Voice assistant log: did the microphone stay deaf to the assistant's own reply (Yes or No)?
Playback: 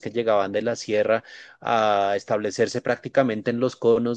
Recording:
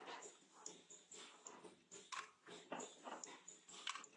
Yes